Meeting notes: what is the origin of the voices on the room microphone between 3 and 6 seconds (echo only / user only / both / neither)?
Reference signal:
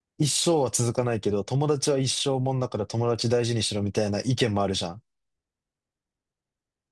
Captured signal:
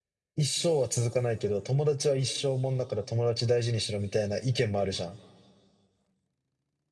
echo only